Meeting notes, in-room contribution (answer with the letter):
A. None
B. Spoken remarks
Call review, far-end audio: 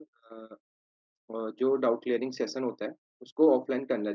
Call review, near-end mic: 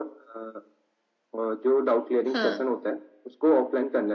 B